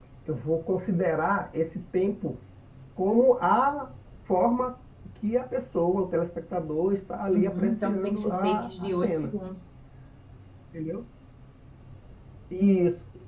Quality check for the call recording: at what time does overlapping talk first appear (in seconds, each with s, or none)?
7.3 s